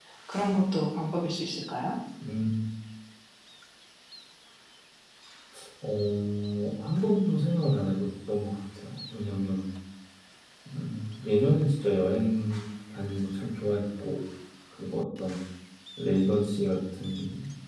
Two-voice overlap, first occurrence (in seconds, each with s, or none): none